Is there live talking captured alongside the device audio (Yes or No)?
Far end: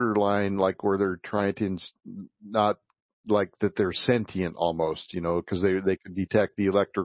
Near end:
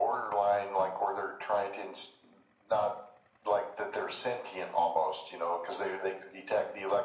No